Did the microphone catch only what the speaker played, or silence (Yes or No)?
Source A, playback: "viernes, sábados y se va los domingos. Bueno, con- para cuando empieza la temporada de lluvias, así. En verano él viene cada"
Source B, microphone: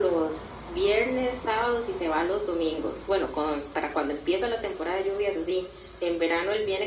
Yes